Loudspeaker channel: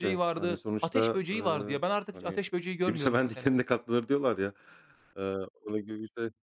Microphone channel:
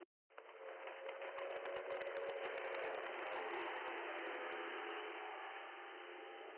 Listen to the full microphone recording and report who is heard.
neither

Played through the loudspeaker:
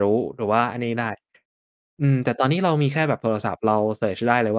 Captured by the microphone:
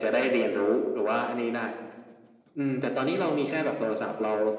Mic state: echo only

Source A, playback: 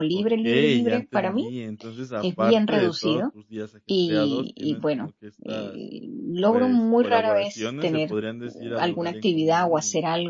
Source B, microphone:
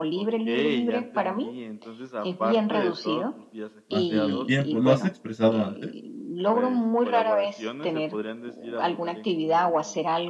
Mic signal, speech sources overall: both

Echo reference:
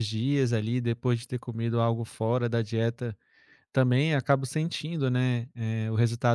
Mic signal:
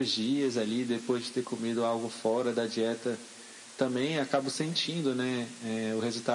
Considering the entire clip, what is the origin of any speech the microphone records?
echo only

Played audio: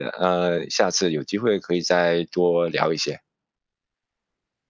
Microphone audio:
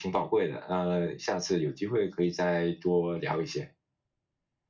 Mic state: echo only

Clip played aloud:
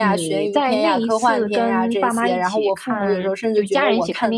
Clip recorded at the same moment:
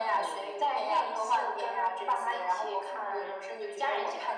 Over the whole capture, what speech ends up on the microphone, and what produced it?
echo only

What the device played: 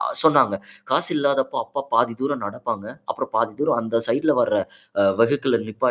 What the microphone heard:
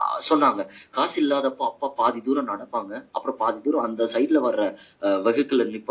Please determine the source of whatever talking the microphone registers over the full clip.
echo only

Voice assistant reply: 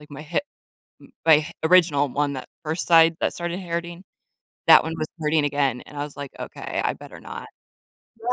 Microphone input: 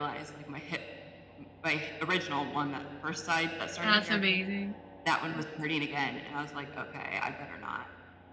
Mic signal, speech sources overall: both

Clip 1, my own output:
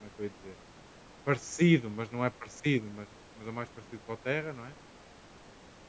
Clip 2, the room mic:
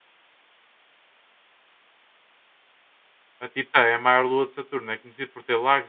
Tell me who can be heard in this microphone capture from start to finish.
user only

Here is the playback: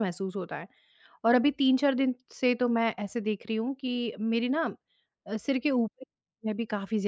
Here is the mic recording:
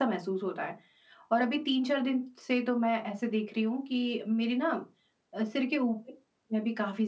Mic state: echo only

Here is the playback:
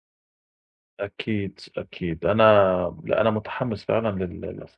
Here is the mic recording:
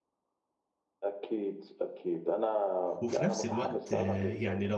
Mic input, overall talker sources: both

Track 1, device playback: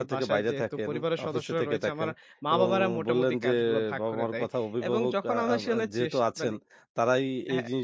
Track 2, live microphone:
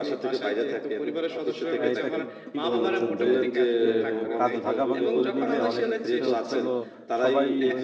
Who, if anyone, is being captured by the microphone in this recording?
both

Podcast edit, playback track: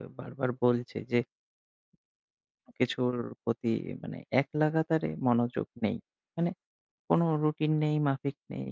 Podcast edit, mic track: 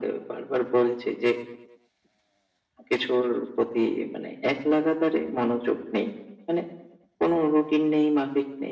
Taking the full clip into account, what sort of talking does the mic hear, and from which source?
echo only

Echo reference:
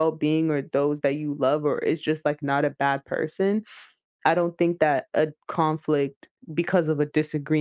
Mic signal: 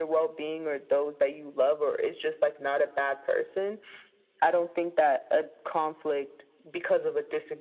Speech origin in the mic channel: echo only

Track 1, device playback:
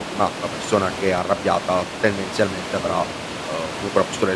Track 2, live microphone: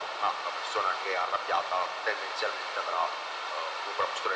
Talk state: echo only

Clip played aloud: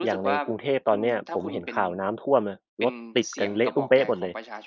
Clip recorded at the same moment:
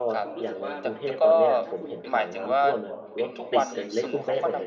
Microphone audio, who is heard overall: both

